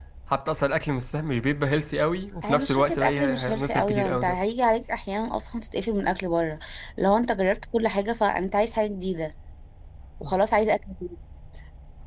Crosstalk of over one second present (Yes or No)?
Yes